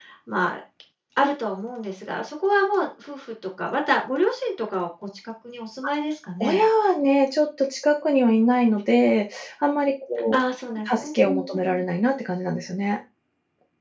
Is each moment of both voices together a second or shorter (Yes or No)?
Yes